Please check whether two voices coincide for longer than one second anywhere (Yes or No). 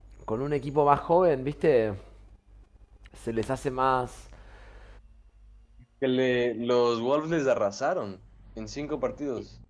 No